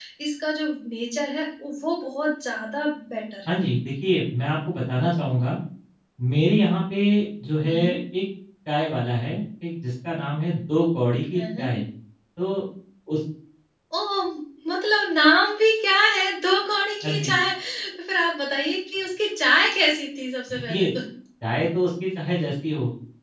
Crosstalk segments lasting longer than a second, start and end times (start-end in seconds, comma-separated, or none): none